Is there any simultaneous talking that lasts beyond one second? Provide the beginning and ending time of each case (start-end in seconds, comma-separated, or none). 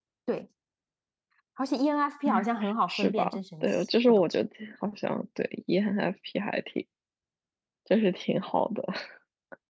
2.9-4.2